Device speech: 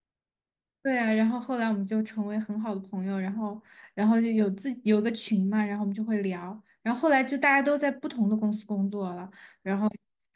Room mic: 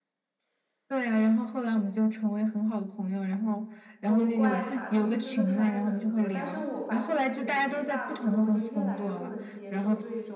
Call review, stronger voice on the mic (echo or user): echo